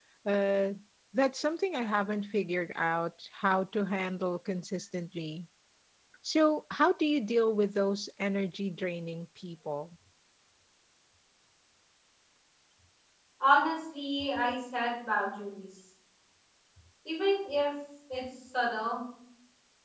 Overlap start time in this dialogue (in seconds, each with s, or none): none